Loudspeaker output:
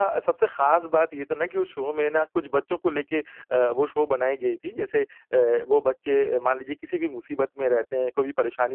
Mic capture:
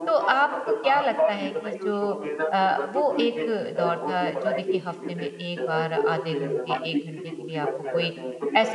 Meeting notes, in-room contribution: present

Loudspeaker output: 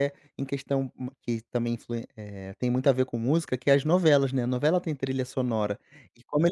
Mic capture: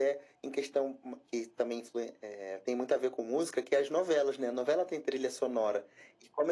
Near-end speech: none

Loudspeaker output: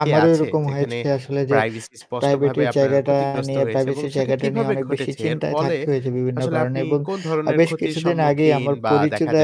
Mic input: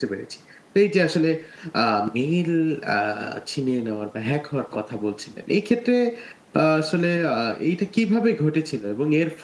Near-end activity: present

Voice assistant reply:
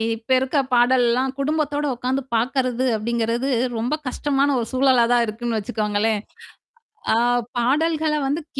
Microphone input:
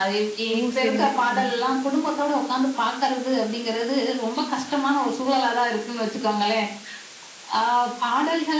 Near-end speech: present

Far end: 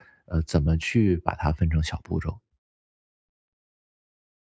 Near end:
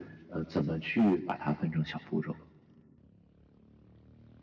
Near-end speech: none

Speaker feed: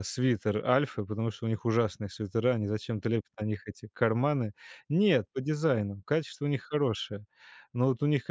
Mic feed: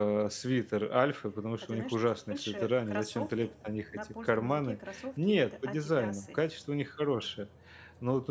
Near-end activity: present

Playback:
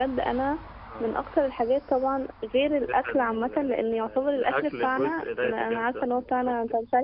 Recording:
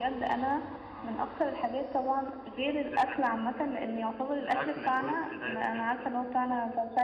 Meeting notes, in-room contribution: none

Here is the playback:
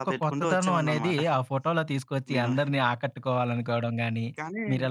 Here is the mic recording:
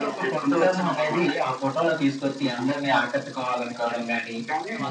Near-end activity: present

